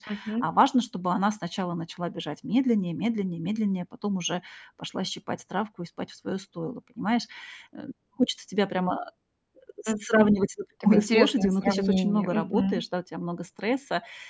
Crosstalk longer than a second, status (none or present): present